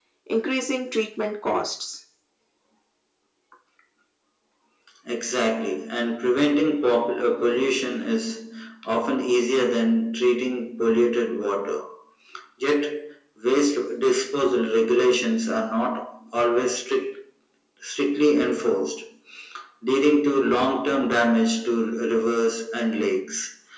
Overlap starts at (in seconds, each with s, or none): none